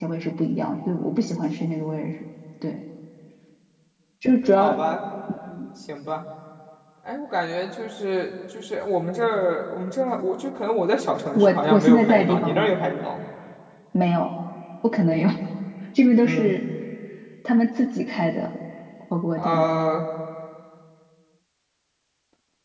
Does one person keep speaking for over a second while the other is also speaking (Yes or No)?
Yes